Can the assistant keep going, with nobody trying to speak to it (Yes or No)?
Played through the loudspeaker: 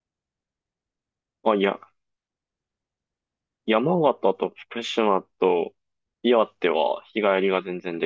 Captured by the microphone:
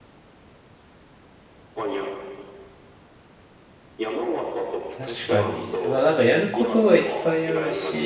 No